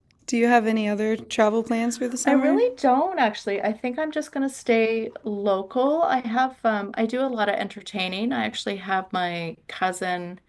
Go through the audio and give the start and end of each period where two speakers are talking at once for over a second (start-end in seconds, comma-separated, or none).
none